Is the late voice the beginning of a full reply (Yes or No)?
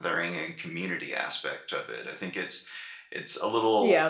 Yes